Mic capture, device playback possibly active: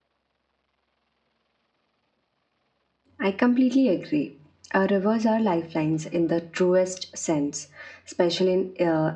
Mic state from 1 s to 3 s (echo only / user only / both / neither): neither